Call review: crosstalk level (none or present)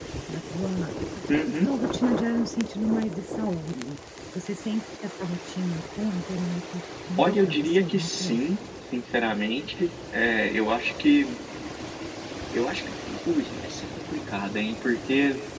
present